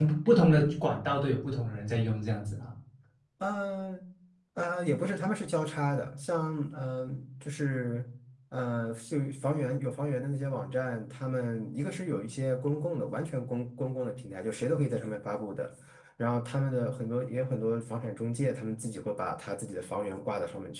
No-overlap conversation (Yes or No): Yes